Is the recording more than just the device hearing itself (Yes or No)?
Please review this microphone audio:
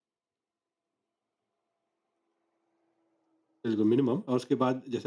Yes